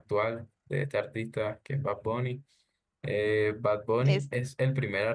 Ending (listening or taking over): listening